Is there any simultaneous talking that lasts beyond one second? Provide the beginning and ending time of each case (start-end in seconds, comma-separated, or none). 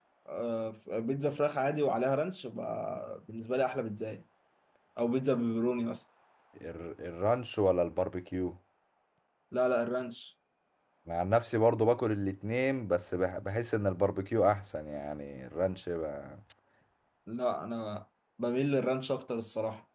none